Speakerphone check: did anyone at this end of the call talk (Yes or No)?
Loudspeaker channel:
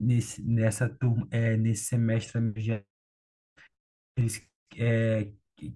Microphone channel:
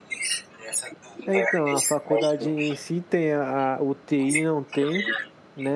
Yes